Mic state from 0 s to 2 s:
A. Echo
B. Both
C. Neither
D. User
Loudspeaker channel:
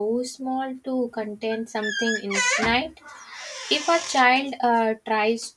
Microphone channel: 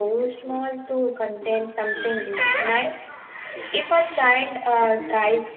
B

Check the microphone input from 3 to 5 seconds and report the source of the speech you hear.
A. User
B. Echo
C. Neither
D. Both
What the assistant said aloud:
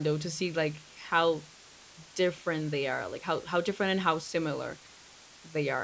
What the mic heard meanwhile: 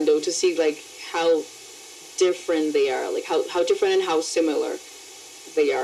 B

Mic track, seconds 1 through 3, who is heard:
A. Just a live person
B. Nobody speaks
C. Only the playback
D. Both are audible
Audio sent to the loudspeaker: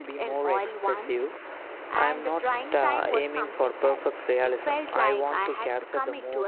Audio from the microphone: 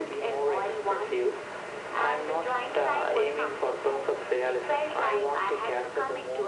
C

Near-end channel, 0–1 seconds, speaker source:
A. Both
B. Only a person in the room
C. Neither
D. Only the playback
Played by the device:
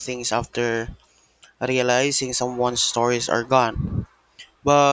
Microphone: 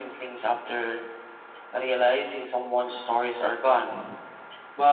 D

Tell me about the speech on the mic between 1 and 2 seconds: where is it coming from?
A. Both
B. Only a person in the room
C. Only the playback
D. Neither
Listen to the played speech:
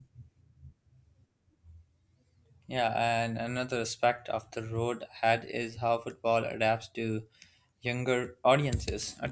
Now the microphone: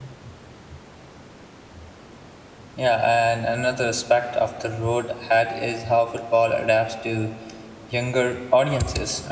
D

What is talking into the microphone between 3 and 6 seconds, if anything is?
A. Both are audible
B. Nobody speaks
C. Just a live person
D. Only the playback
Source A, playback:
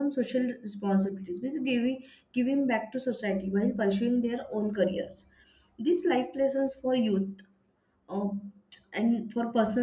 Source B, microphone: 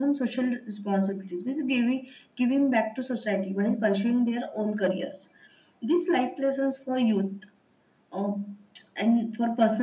D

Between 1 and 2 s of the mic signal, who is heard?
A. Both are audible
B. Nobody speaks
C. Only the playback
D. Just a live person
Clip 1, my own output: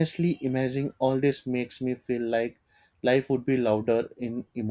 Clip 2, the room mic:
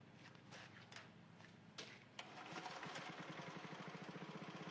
B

